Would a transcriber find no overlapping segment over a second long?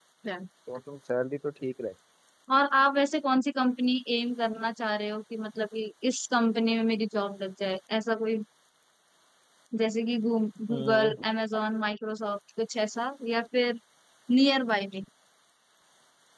Yes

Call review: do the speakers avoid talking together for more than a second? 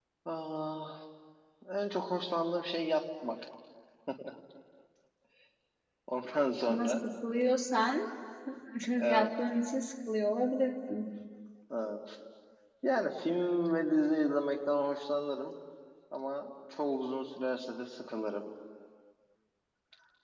Yes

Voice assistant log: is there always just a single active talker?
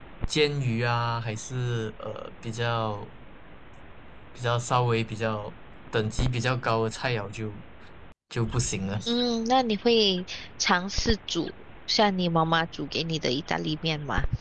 Yes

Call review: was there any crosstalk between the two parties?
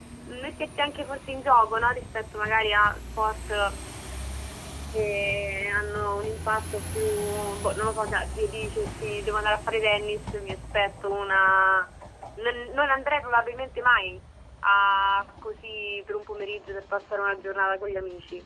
No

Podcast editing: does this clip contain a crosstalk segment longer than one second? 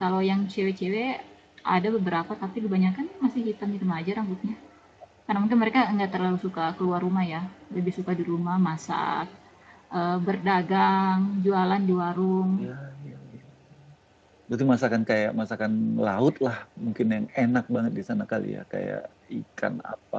No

